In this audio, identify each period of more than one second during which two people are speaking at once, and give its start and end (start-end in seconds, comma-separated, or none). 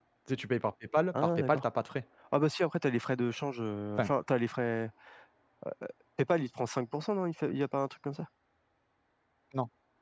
none